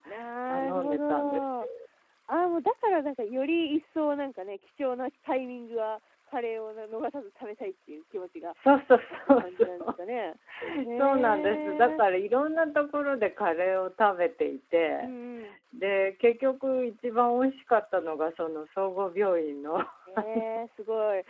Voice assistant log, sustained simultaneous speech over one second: present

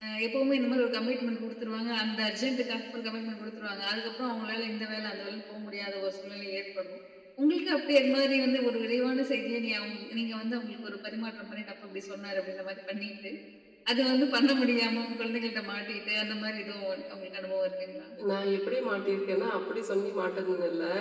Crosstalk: none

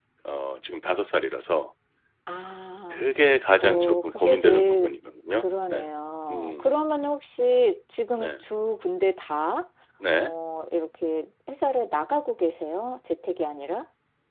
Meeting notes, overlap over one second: present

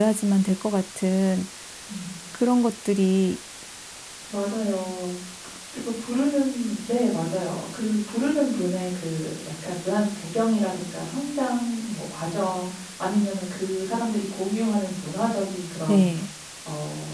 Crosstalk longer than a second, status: none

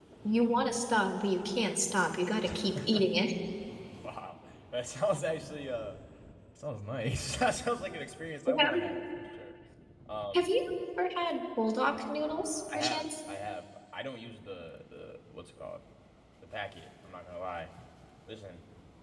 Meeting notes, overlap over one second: none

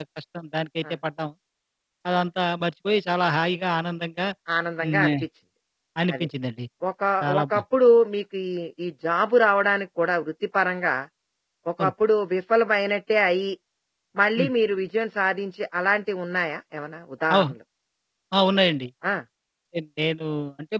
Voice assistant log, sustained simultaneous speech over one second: none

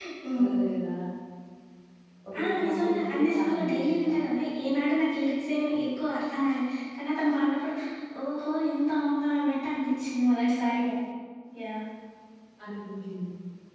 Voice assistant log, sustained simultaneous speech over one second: present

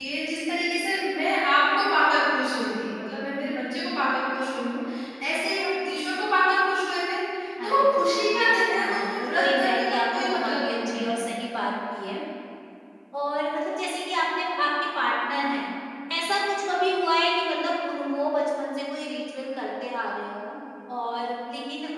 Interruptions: present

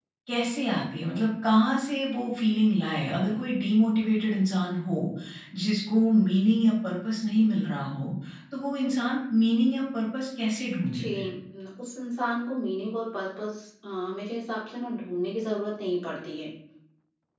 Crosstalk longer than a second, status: none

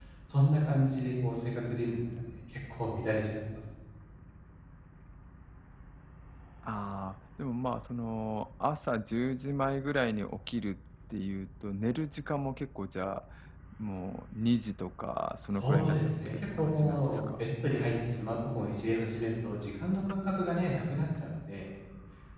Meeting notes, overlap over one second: present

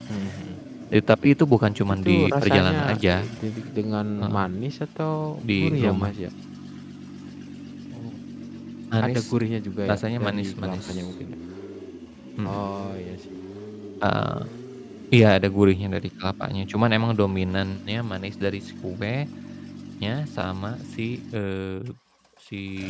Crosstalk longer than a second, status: present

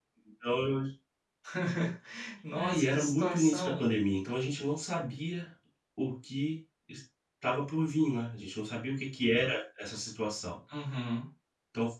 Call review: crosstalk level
present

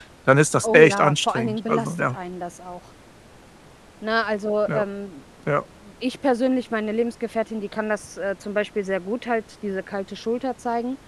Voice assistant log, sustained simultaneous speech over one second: present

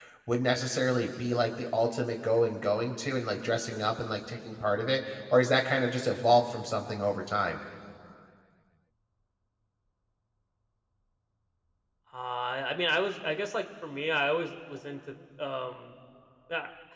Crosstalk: none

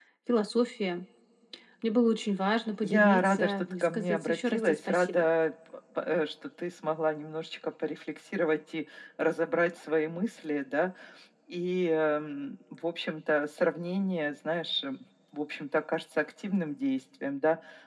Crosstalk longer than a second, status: present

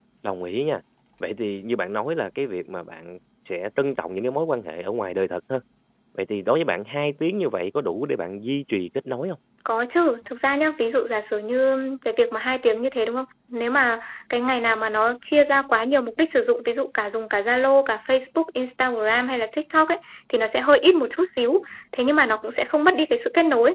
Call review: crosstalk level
none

